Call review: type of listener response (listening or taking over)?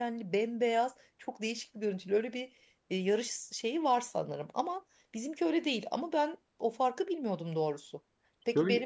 listening